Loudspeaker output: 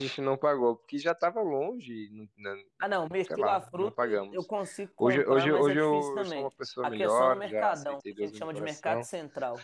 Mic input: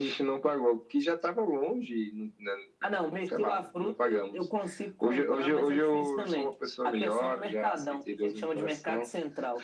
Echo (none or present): present